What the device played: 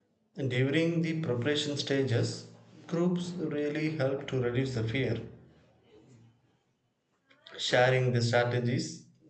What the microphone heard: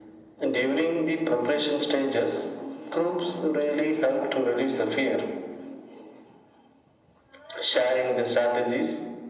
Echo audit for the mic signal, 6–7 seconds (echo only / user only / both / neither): neither